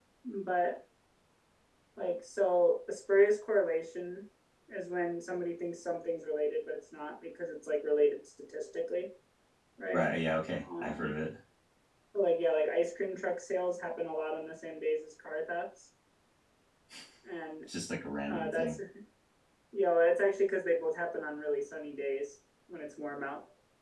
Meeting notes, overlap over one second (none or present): none